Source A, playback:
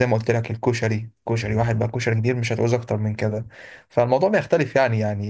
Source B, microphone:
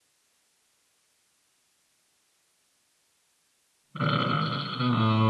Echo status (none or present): none